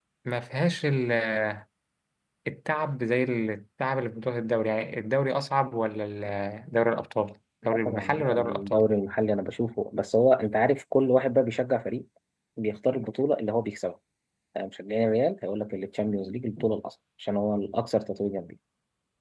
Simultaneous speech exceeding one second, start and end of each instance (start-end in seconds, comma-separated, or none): 7.6-8.9